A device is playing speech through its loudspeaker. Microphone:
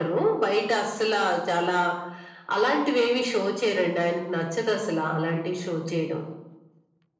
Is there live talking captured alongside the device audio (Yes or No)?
No